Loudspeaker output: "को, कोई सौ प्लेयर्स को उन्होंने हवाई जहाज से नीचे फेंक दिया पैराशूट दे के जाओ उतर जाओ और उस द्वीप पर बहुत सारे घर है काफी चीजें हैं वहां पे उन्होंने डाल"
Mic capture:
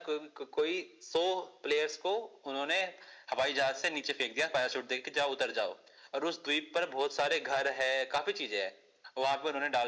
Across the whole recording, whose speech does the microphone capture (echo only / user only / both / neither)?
echo only